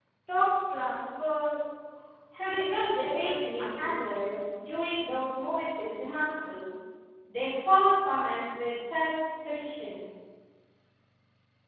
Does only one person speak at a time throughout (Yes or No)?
No